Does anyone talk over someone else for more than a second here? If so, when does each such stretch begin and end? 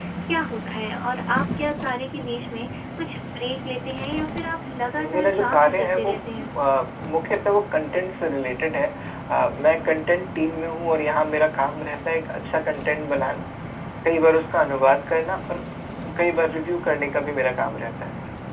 5.0-6.5

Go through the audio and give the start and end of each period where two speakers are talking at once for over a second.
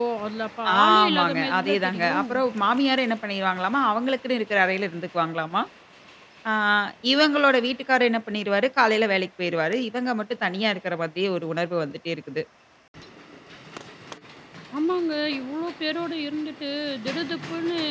0.8-2.2

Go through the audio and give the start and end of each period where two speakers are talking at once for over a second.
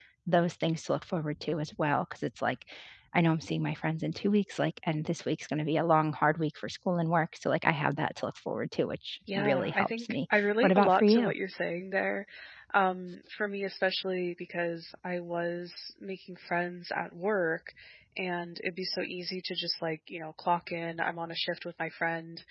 9.4-11.3

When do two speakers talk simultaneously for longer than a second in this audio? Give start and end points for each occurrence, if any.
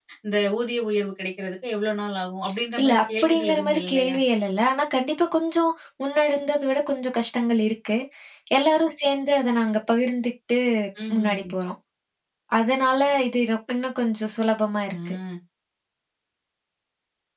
2.8-4.2

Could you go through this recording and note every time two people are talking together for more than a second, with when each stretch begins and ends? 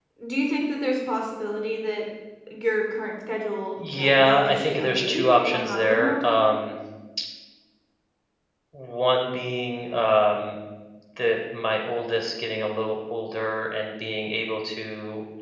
3.8-6.4

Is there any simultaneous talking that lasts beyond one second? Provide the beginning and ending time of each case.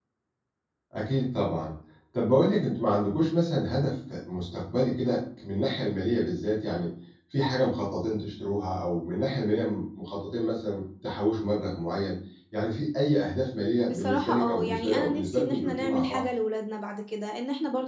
13.8-16.2

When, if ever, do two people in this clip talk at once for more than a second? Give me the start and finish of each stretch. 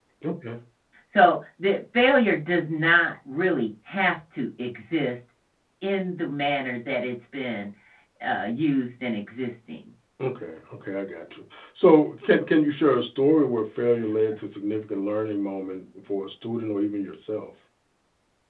none

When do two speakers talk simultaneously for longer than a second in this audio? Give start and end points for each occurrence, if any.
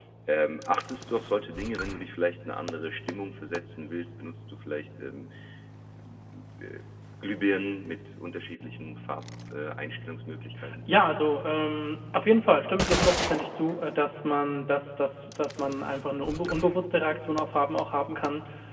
none

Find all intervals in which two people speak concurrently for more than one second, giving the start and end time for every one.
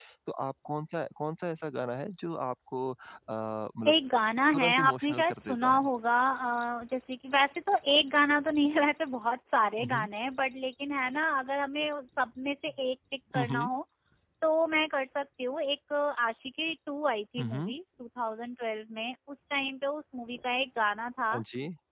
4.5-5.8

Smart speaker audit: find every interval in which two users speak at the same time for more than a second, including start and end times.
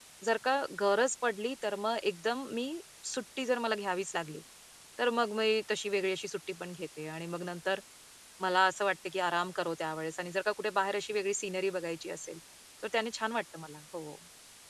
none

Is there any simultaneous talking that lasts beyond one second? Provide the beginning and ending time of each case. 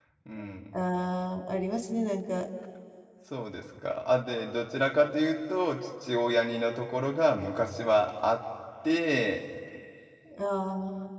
none

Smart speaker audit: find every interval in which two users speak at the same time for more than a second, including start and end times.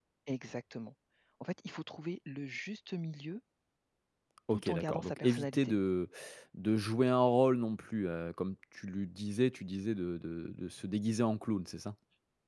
4.5-5.8

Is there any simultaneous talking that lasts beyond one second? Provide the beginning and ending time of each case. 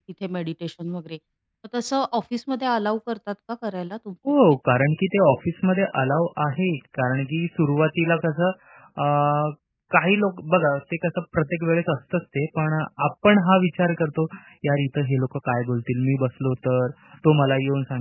none

